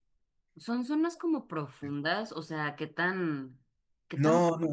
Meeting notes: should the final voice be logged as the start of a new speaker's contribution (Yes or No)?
Yes